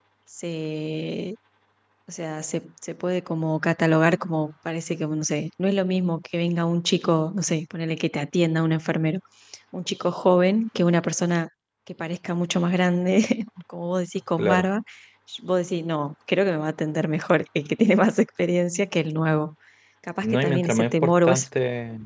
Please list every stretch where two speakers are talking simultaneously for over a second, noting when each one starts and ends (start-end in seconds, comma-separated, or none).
20.2-21.4